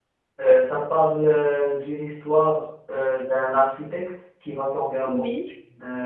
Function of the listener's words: listening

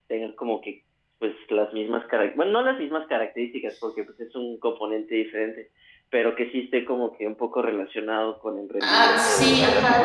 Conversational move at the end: taking over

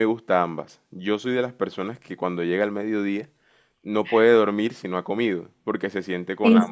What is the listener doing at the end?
listening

